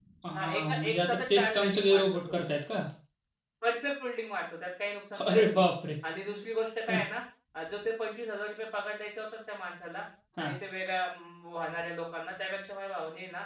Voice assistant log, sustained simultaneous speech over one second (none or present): present